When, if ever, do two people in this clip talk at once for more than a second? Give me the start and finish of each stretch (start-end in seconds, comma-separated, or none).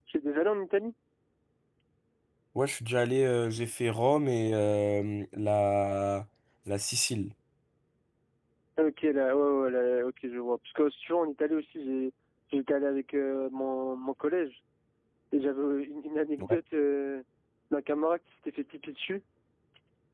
none